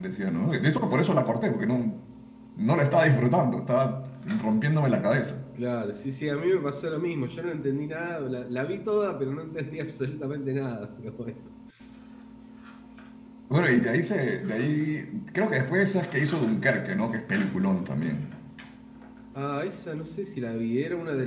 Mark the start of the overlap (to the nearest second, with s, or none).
none